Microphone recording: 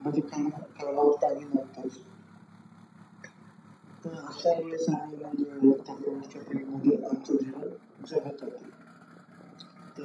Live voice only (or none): none